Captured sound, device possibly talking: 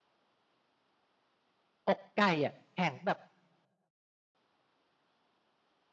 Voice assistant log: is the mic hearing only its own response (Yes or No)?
No